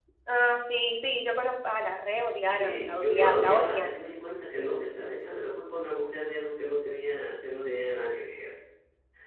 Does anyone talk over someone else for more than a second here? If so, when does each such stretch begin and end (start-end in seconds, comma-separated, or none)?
2.6-4.0